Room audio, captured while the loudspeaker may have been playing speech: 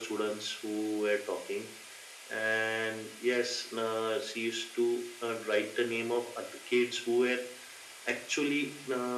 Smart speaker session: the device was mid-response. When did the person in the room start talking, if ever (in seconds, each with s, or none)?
none